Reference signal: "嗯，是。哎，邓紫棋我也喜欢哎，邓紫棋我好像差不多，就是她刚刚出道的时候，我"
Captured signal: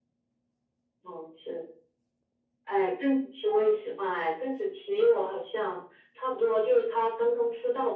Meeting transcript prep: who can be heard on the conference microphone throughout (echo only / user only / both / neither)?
echo only